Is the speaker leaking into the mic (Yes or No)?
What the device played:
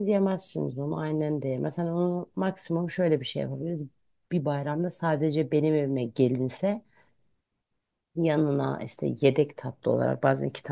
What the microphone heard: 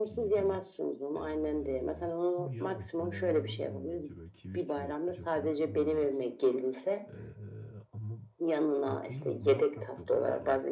Yes